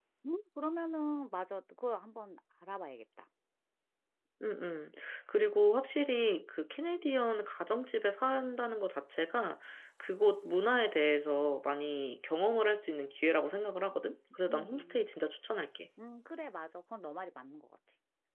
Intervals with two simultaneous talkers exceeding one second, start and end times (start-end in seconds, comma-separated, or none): none